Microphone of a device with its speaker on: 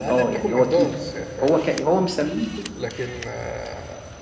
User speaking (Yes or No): Yes